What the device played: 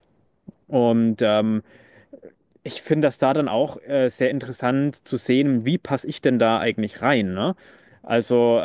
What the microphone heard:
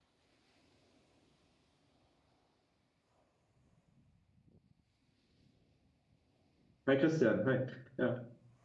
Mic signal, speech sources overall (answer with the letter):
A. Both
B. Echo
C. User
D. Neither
C